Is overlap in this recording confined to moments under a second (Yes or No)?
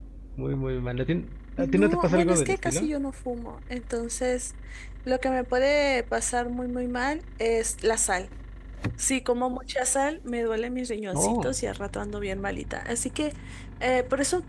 No